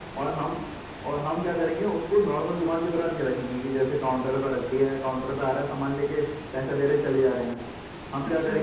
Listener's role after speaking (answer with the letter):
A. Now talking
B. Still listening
B